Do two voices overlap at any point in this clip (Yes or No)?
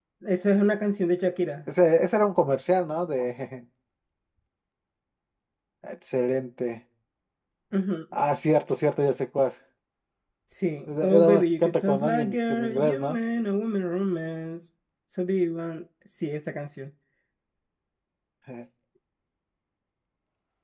Yes